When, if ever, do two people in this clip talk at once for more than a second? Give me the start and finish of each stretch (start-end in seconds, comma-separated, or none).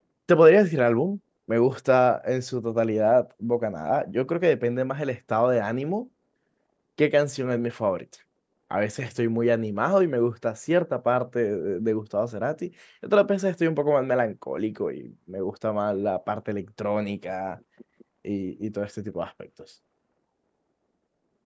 none